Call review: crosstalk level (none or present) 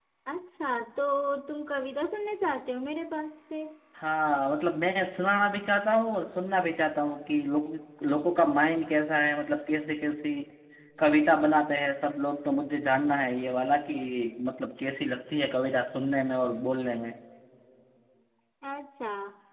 none